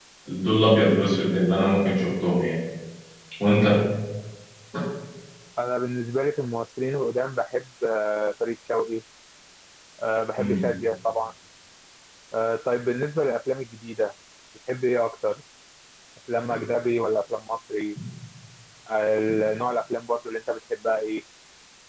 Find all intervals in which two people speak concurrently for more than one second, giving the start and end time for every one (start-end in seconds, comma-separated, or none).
none